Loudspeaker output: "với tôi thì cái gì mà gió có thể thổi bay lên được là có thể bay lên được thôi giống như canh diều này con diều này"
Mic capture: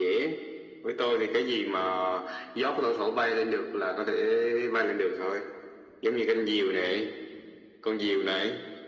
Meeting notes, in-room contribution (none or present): none